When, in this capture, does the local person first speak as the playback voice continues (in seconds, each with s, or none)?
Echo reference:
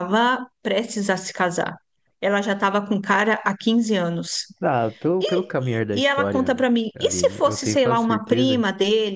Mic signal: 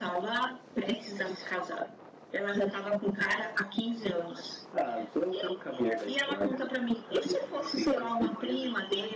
none